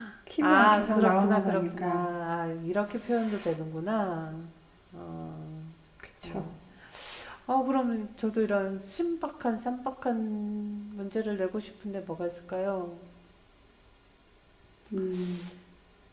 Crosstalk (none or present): present